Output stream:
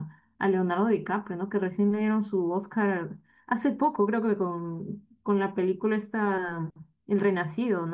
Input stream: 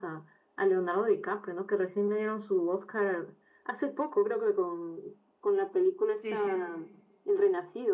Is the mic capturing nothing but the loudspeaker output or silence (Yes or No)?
No